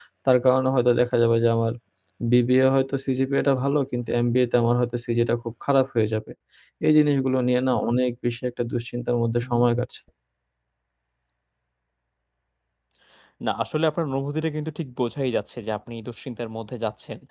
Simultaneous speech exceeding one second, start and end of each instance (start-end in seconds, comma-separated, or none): none